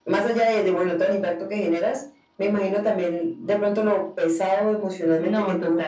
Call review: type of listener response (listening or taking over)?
listening